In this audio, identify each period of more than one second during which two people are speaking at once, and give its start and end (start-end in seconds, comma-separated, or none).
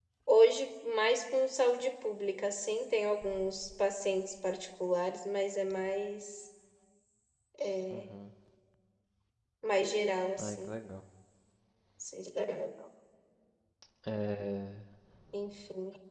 none